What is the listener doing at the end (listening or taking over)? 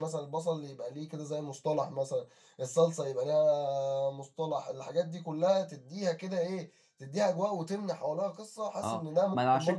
taking over